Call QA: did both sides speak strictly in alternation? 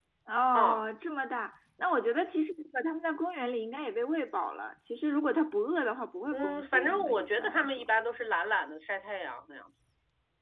No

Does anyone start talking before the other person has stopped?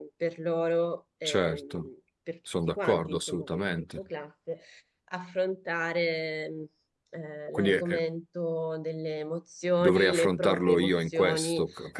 Yes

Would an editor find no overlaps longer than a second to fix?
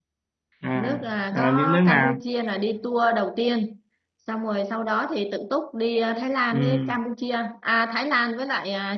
No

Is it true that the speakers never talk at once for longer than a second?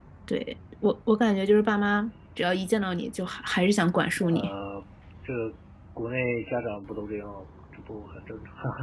Yes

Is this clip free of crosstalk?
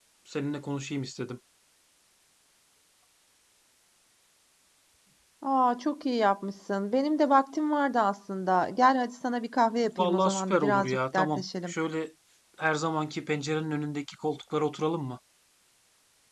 No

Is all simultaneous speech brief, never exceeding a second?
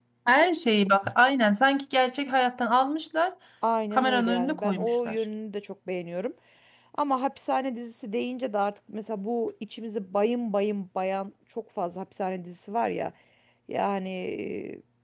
No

